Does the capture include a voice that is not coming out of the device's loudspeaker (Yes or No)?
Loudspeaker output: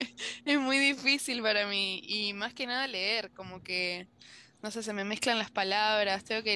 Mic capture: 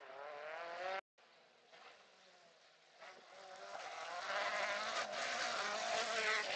No